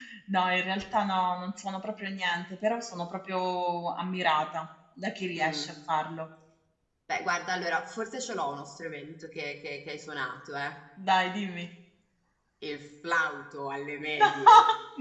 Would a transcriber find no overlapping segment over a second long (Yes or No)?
Yes